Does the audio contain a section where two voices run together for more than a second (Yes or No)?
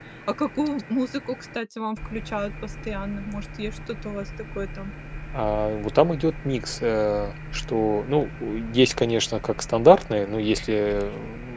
No